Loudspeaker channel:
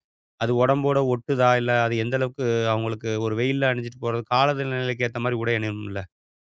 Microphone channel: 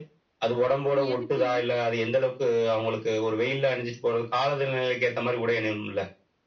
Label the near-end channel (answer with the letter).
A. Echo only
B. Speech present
B